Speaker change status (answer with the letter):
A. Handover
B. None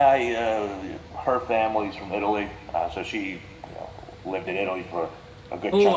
A